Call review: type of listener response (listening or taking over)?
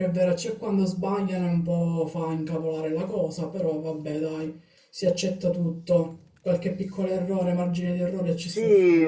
taking over